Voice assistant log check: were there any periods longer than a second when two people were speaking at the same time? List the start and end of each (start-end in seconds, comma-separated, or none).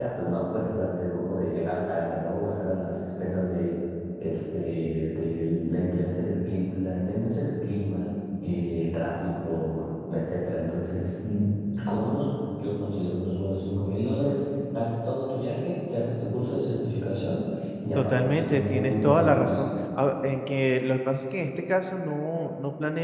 18.0-19.7